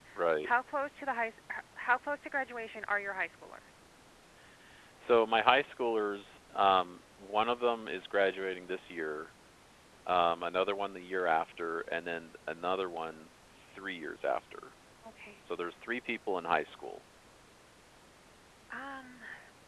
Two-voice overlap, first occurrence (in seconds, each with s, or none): none